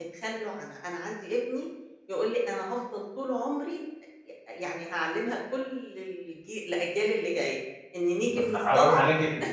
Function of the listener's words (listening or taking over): taking over